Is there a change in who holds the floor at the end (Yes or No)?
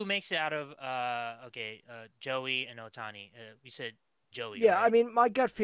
Yes